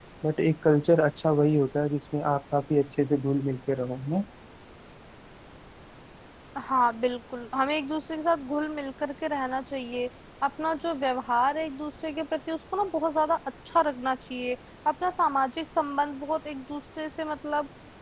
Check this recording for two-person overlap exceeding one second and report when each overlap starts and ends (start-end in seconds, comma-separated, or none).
none